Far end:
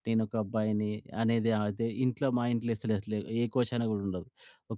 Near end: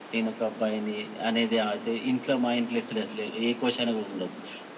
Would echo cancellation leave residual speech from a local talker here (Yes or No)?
No